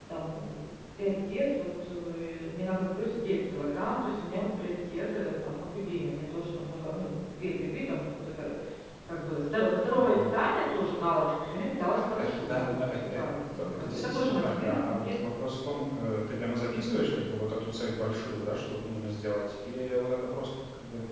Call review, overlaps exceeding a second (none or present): present